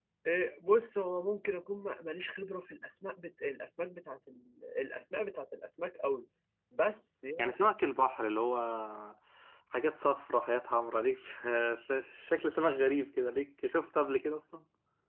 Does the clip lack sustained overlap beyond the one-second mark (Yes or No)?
Yes